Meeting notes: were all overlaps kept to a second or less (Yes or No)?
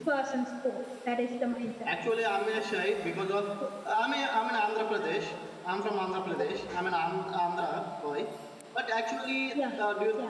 Yes